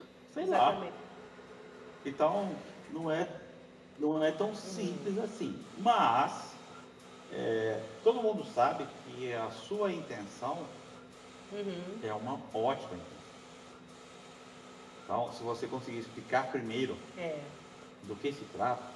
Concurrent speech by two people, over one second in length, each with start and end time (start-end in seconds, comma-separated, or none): none